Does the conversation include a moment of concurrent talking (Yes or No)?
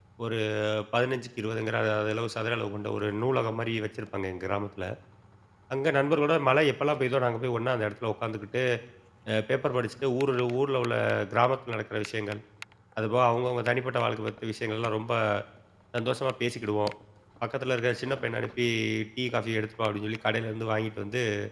No